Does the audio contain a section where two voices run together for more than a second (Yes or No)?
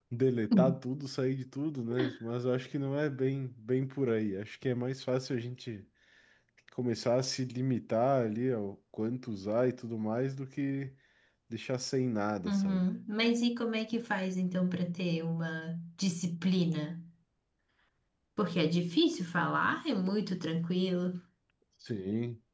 No